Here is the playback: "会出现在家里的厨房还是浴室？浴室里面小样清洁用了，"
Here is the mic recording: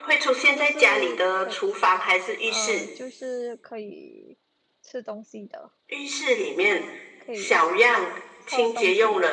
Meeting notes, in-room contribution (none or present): present